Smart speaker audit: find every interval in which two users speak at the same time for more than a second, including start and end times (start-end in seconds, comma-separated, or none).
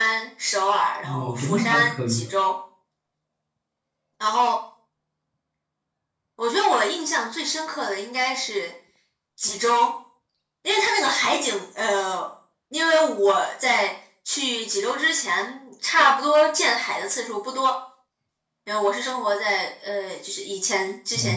1.0-2.3